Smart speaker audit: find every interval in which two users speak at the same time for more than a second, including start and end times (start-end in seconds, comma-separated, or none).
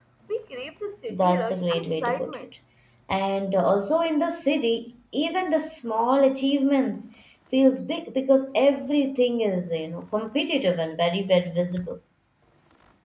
1.1-2.4